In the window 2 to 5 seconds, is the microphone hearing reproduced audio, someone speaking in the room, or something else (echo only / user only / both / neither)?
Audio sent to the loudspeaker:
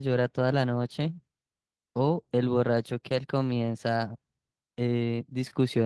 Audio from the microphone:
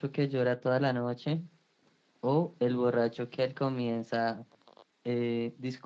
echo only